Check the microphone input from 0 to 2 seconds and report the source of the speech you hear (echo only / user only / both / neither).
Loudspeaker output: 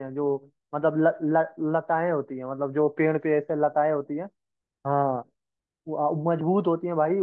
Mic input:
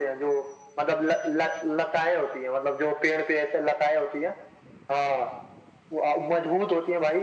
echo only